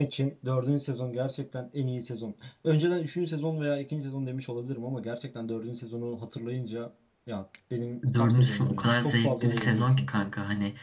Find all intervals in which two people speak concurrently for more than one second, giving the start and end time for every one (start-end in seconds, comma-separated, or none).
8.2-10.2